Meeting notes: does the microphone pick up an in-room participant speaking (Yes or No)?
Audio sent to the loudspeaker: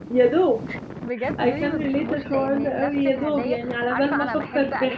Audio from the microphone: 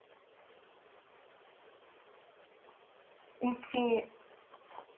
Yes